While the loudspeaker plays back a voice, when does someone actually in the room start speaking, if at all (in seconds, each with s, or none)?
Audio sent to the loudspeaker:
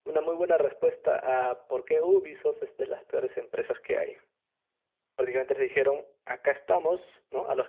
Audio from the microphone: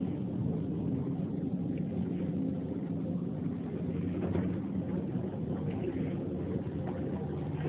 none